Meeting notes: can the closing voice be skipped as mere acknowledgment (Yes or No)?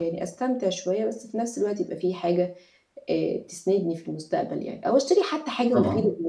Yes